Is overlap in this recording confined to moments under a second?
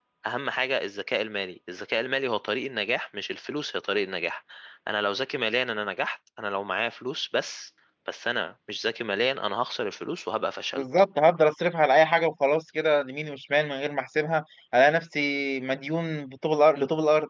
Yes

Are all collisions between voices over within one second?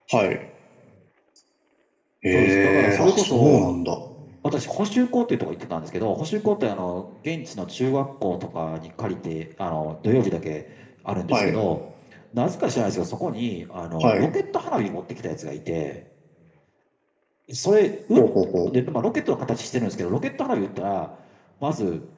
No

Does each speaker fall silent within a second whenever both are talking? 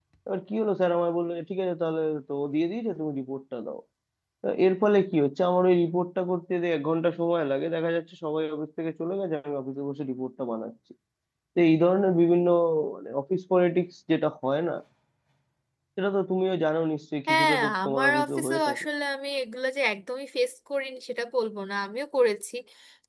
No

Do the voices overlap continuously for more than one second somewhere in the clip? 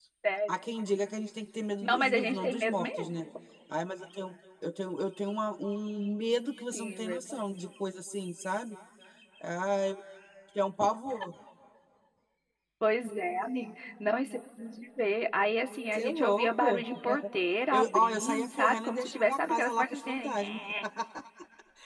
Yes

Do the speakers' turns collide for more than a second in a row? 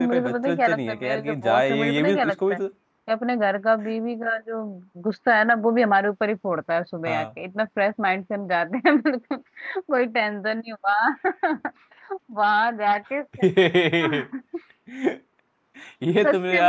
Yes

